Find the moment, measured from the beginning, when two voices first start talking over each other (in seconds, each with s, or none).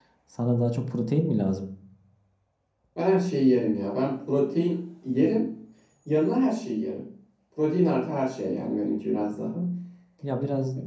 none